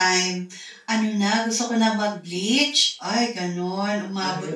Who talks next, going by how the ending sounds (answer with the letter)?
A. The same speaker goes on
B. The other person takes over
A